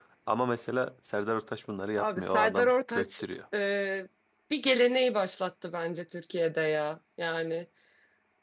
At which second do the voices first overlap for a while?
2 s

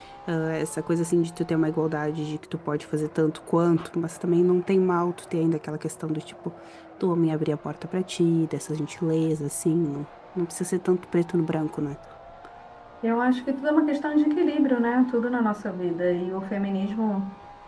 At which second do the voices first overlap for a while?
none

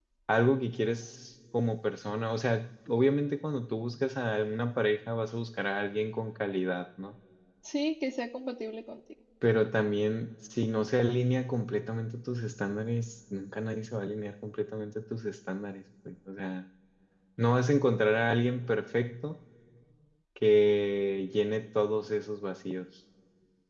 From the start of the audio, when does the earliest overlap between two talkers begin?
none

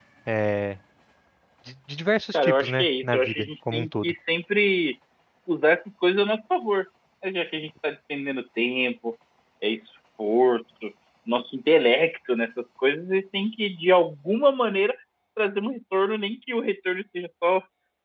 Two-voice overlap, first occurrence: 2 s

